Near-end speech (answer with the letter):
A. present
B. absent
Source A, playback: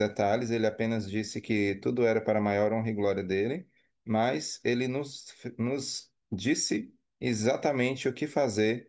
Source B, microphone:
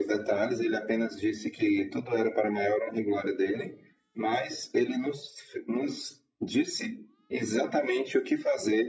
B